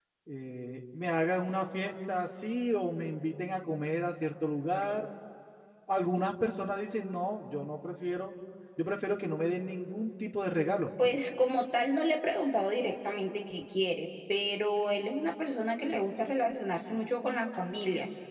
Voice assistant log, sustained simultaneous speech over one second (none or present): none